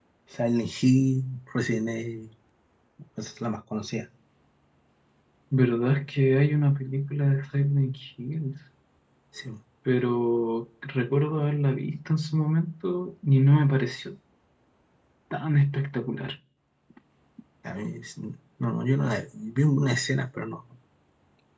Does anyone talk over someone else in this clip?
No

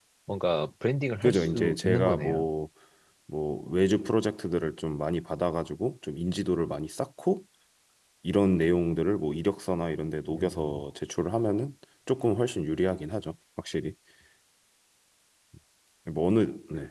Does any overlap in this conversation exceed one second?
Yes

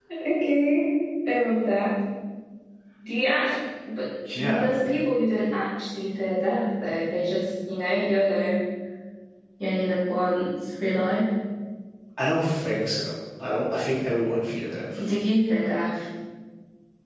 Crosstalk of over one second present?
No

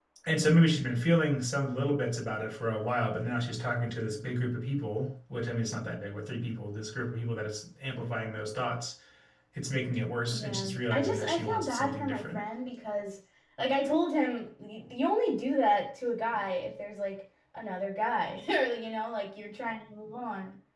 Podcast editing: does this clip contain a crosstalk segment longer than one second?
Yes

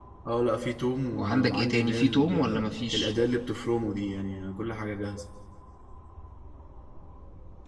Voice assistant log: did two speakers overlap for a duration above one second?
Yes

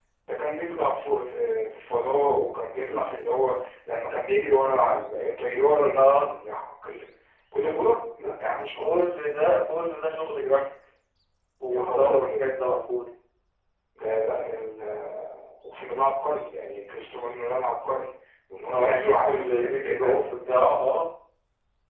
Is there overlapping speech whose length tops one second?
Yes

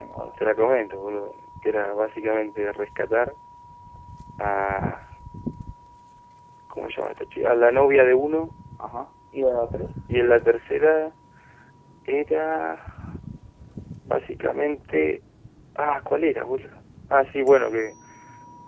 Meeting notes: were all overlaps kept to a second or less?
Yes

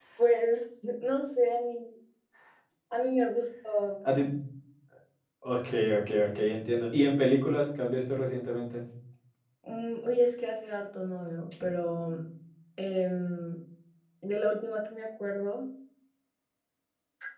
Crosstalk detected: No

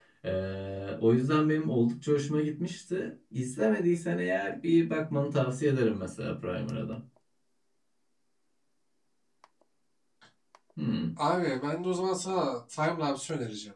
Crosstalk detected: No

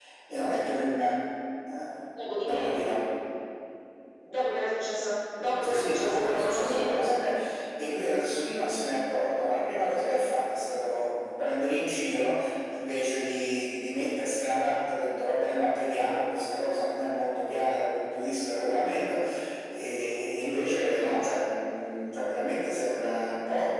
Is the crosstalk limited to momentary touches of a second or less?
No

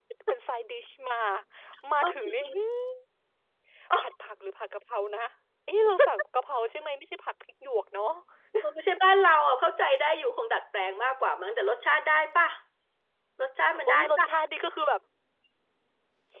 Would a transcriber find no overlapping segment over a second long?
Yes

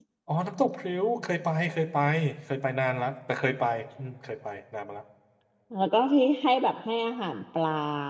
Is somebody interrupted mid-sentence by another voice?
No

